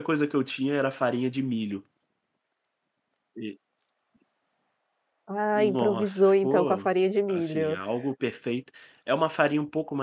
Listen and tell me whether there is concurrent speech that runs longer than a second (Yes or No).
Yes